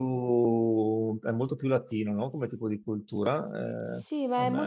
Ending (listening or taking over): taking over